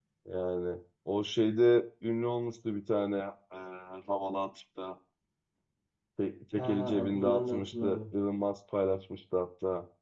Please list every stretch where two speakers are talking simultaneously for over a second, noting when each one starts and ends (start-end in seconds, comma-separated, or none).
6.5-8.0